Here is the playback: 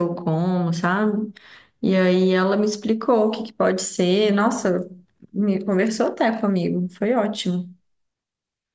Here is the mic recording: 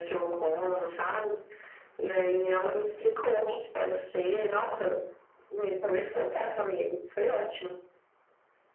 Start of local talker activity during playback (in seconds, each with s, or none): none